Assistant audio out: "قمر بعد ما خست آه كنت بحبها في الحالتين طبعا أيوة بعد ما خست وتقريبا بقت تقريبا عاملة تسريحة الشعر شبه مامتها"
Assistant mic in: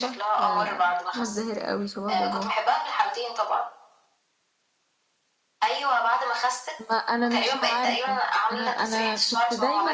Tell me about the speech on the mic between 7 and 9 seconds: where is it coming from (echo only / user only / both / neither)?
both